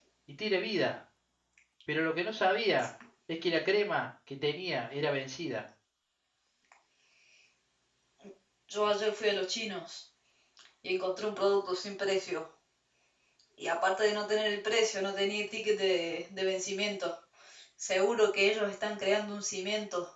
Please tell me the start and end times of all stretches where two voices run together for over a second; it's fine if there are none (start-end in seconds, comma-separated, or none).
none